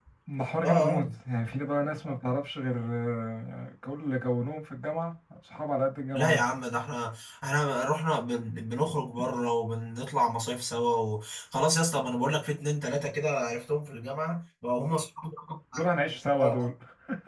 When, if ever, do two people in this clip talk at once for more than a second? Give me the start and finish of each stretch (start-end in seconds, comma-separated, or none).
none